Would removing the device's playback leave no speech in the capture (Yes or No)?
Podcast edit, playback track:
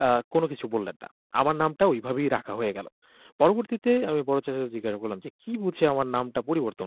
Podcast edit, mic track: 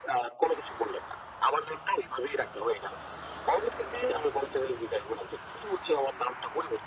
Yes